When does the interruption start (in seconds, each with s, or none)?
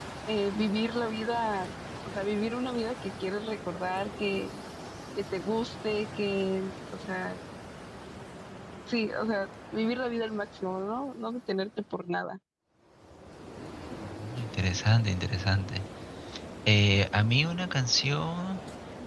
none